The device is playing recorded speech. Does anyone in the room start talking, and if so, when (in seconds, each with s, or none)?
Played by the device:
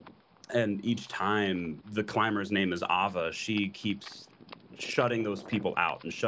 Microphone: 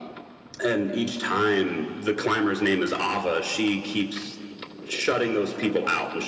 none